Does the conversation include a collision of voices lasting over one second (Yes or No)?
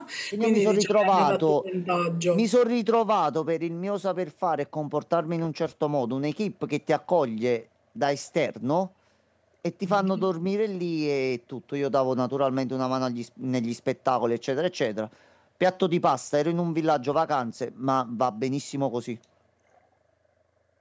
Yes